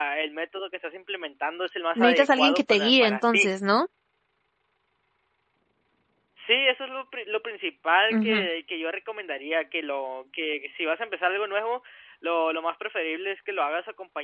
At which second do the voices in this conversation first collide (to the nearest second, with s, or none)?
2 s